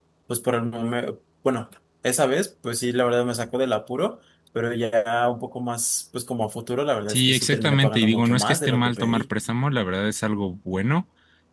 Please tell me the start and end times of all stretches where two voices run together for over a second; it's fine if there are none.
7.1-9.2

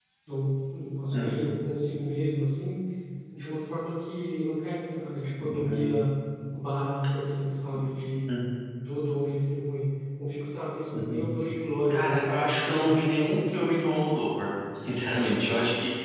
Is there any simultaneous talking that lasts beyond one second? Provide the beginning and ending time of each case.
11.9-13.4

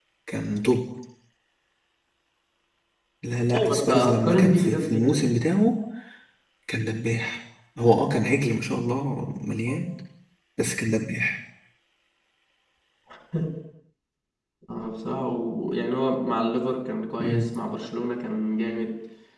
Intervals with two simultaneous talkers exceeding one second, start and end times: 3.5-5.2

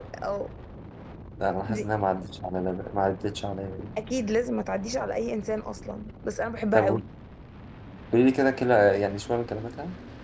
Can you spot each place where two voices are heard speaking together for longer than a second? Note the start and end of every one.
none

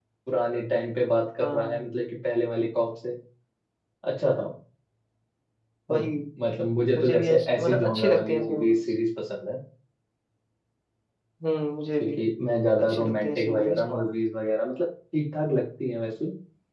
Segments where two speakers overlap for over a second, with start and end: 7.0-8.8, 12.8-14.0

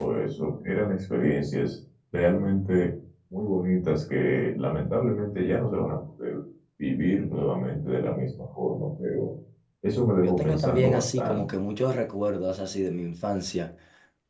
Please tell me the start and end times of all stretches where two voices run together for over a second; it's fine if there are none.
10.2-11.4

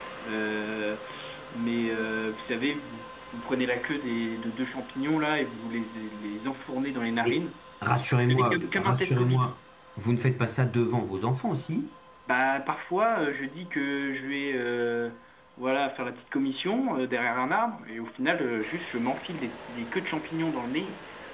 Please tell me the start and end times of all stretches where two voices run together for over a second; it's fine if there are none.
8.1-9.5

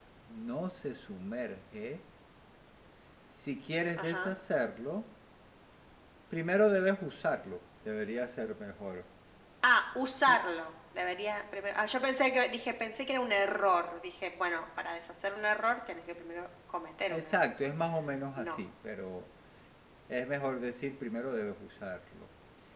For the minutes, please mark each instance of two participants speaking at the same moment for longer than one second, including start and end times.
none

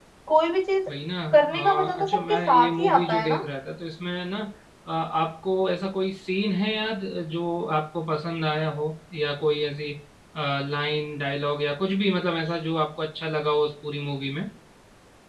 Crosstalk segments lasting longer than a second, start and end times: 1.3-3.4

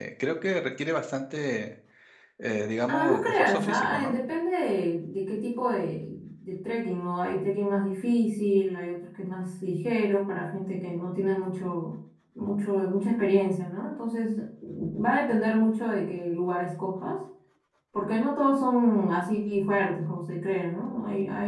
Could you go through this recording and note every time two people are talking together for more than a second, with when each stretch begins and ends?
2.9-4.2

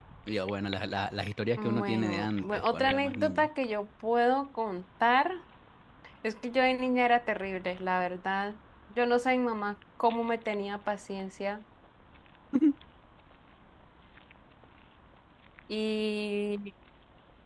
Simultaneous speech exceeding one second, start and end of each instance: 1.6-3.5

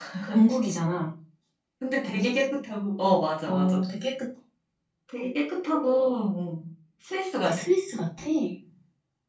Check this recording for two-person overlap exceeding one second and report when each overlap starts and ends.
none

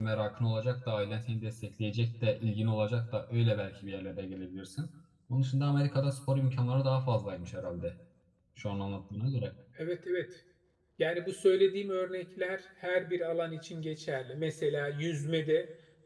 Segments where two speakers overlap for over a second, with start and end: none

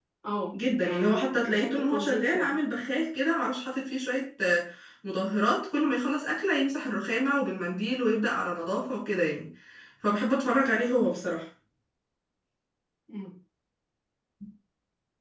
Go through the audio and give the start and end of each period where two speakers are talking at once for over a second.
0.8-2.6

